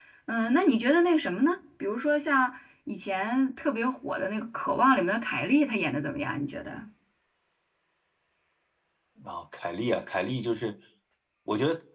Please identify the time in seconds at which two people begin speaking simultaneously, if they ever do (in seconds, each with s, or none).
none